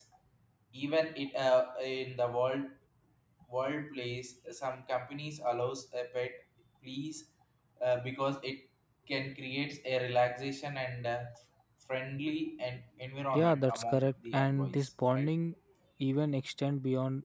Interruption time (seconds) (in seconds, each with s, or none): 13.3 s